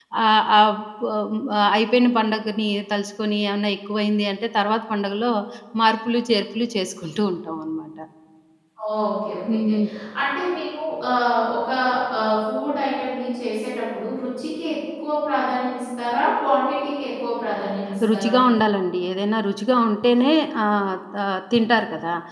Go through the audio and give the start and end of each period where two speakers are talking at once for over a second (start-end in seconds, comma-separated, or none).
none